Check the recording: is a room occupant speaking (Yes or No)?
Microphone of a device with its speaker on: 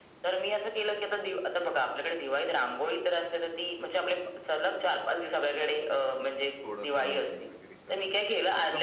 Yes